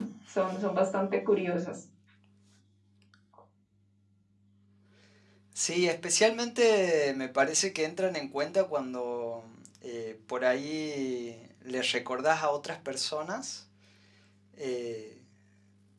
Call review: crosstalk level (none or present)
none